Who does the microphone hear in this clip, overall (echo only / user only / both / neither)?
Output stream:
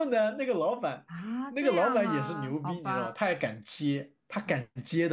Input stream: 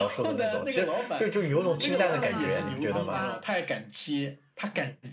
both